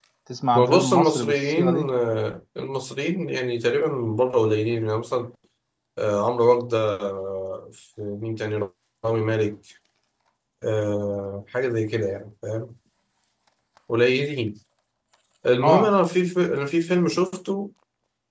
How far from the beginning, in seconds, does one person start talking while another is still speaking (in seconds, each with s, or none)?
0.6 s